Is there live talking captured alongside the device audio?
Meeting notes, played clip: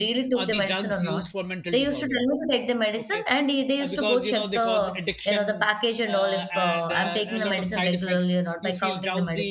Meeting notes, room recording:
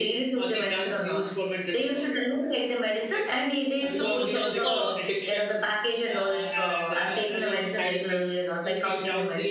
Yes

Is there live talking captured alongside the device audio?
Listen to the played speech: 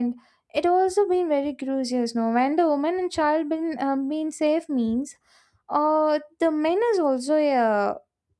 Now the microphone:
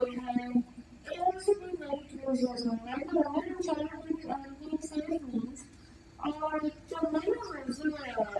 No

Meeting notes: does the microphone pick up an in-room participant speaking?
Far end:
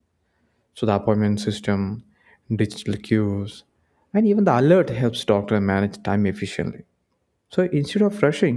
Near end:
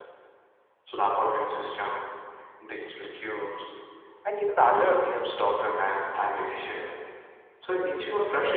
No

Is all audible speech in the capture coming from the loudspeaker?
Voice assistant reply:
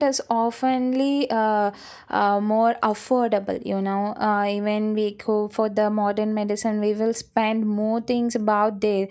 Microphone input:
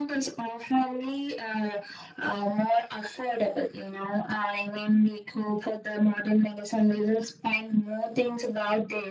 Yes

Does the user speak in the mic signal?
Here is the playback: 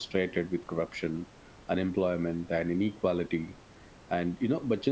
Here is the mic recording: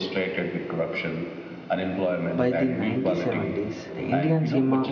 Yes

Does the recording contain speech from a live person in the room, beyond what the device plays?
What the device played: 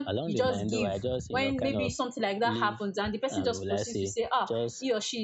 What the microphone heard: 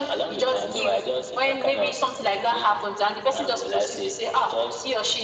No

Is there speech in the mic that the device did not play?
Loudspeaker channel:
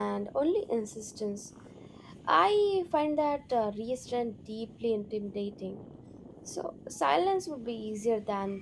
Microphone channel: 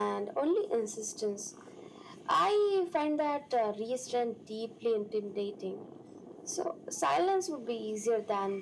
No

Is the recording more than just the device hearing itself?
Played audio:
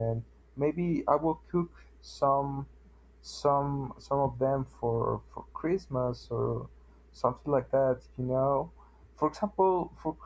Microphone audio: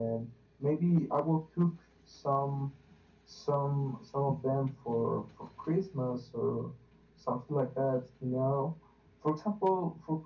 No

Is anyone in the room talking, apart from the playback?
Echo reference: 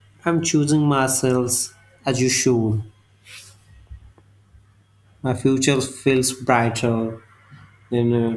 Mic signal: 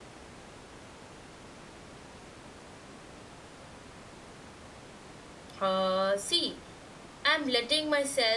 Yes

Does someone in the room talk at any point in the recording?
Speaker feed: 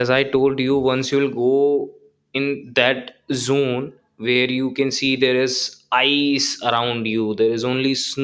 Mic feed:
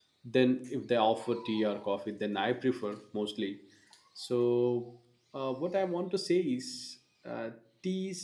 Yes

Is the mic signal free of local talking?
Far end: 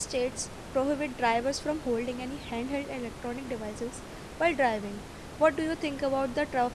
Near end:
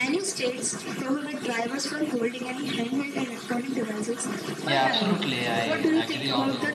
No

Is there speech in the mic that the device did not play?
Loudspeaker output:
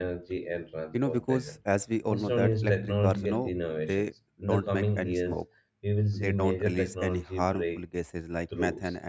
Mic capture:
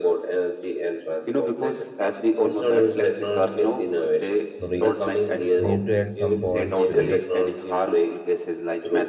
Yes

